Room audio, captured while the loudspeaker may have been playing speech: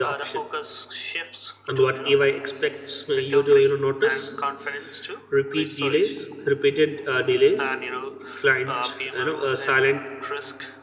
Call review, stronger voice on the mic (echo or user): user